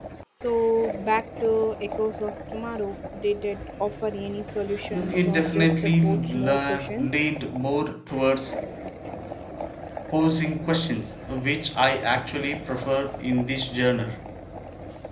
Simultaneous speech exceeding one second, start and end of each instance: 4.9-7.1

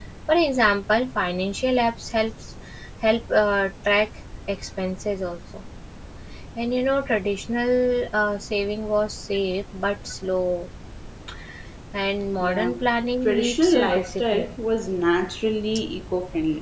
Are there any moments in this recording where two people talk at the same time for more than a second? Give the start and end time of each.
13.2-14.5

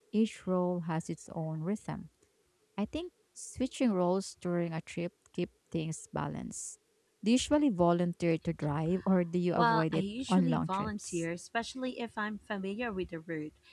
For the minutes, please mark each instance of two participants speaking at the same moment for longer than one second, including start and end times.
9.6-11.2

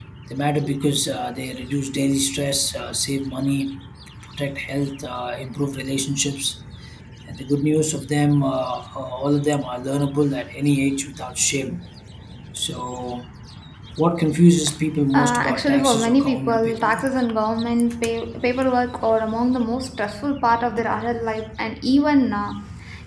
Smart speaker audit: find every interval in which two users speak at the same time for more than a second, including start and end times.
15.1-17.1

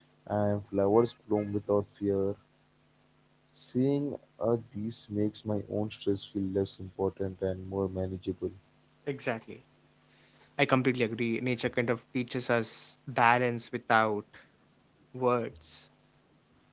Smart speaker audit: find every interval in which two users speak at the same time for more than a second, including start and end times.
none

